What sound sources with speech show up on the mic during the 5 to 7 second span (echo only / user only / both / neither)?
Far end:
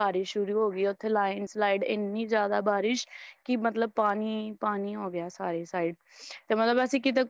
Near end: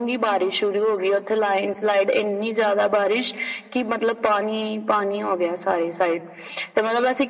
echo only